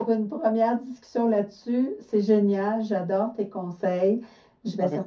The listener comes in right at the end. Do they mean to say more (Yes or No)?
No